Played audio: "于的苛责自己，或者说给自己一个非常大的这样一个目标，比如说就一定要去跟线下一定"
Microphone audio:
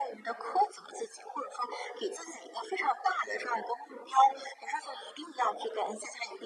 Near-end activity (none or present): none